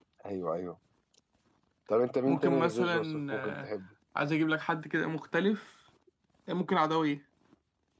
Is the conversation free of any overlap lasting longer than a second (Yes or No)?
No